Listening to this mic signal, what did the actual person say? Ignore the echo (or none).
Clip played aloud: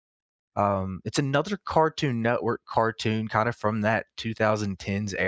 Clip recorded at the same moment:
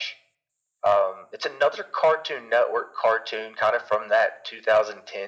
none